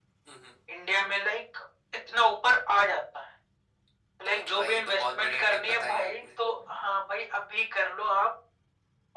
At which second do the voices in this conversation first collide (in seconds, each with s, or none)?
4.2 s